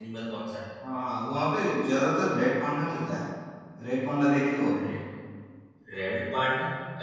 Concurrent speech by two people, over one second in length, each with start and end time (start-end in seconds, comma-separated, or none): none